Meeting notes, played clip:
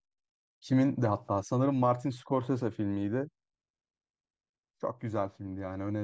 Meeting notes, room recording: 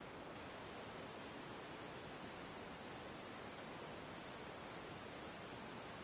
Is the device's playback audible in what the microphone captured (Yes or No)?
No